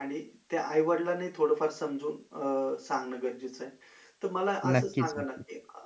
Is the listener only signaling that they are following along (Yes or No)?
Yes